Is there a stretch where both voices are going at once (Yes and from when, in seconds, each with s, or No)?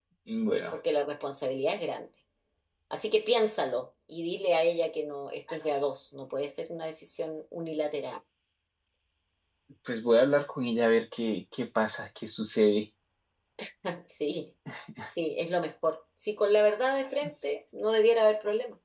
No